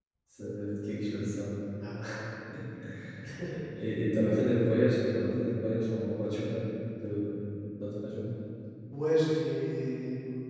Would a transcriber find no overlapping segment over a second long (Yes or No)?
Yes